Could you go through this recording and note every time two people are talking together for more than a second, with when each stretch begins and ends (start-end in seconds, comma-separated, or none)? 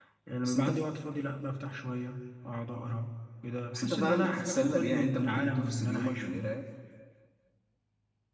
3.7-6.5